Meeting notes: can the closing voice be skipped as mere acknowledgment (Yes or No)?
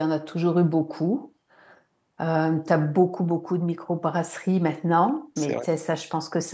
Yes